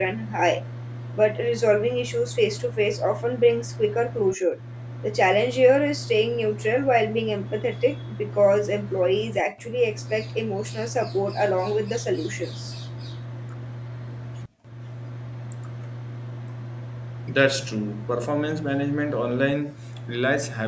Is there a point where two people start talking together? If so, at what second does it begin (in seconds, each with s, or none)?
none